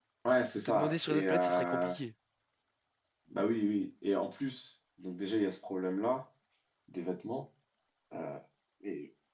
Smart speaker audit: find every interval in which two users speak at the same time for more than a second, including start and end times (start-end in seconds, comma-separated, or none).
0.6-1.9